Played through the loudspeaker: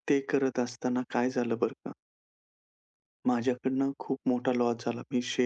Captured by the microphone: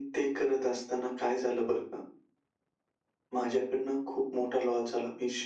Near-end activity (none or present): none